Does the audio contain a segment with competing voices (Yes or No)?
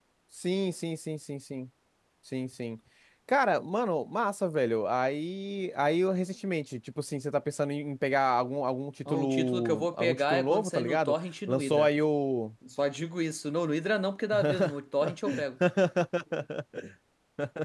Yes